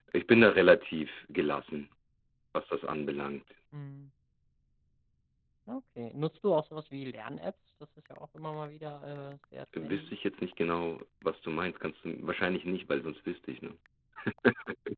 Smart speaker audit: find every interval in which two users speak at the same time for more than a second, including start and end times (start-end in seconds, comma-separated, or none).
none